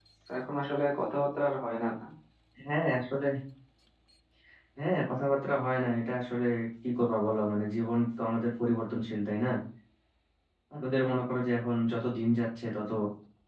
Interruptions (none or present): none